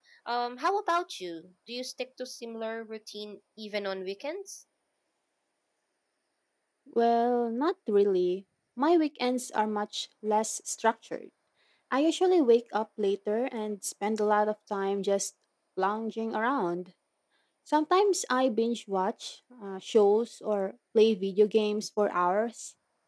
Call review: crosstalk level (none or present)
none